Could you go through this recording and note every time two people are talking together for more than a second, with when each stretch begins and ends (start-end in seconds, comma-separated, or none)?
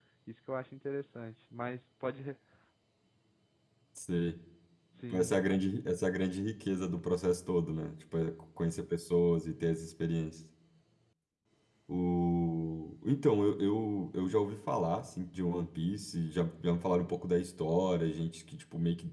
none